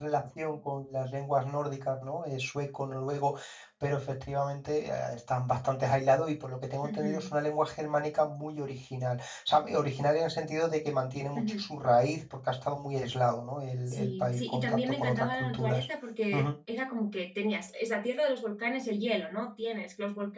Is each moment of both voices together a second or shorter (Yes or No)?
No